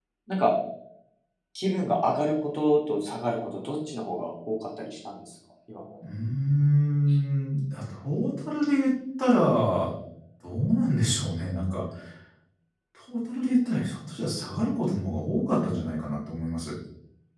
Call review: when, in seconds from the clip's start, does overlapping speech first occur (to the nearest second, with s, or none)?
none